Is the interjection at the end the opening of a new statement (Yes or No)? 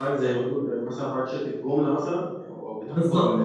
Yes